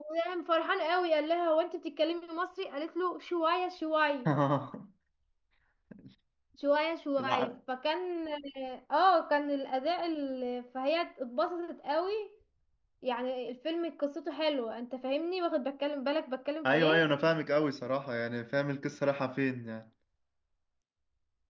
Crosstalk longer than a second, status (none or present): none